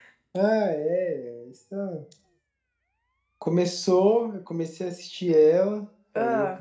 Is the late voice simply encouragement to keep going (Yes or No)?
Yes